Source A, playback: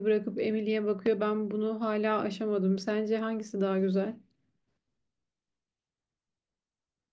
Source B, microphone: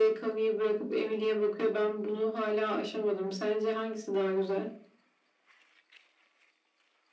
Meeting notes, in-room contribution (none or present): none